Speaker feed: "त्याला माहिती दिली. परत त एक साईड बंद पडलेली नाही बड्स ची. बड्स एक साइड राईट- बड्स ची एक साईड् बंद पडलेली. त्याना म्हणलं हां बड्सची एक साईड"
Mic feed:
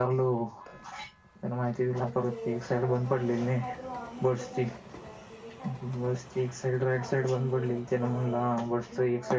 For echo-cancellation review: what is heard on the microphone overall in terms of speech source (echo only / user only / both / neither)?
both